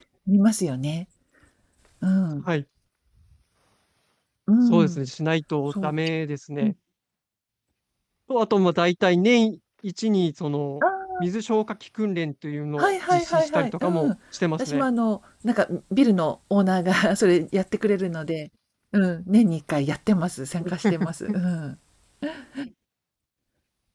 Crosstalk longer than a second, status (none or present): present